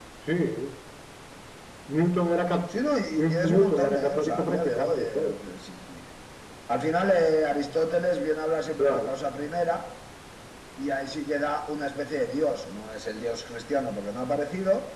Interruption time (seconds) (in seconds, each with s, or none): 3.2 s